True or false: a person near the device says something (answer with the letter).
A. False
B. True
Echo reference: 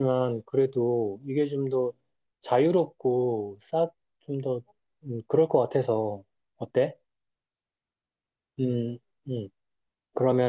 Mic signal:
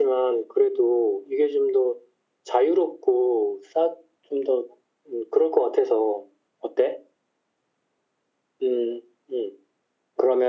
A